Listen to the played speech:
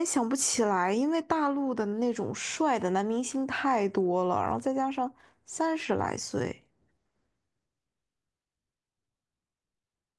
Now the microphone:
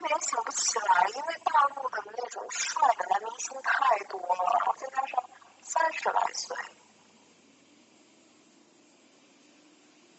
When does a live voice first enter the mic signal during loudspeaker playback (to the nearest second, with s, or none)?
none